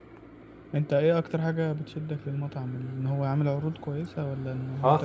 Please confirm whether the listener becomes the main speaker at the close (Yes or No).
Yes